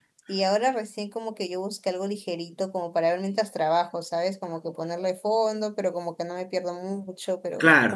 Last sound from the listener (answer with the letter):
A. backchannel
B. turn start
A